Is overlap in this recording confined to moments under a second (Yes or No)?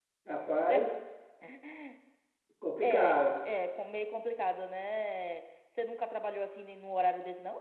Yes